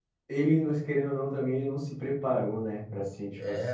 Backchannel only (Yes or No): No